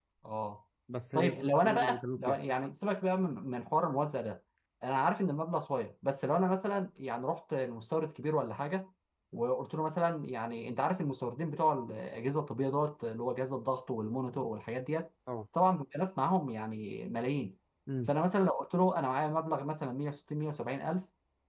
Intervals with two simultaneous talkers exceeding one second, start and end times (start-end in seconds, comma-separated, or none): 1.1-2.4